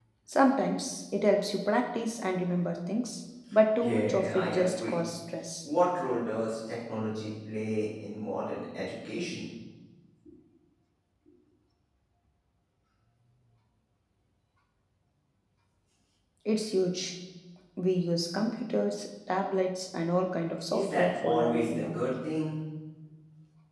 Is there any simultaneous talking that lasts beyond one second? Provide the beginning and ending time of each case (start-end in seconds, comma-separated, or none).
3.8-5.0, 20.7-22.0